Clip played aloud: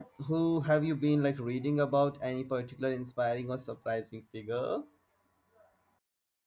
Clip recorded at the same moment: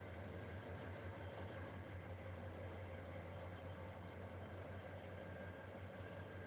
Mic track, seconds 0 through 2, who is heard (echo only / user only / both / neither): neither